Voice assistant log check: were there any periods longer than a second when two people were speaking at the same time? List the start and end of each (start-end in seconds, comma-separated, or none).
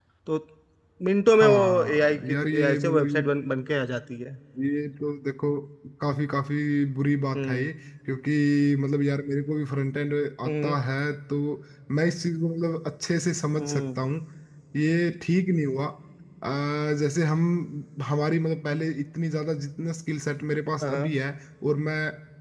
1.3-3.2